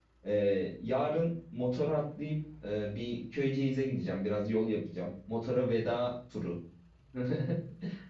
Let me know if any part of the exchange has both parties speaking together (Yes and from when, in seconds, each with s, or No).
No